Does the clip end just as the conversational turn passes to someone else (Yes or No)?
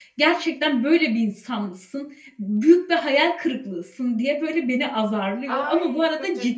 Yes